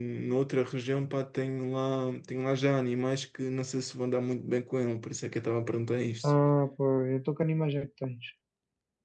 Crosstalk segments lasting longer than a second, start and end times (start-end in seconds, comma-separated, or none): none